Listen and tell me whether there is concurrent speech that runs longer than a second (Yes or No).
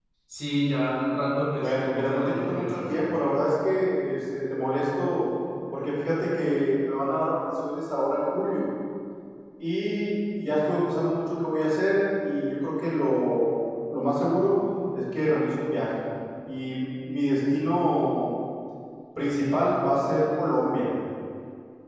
Yes